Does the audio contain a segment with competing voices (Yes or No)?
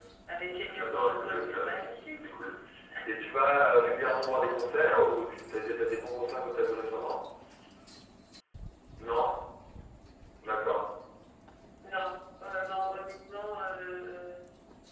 Yes